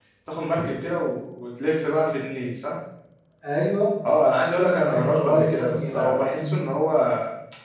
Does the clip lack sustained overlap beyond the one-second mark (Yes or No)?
No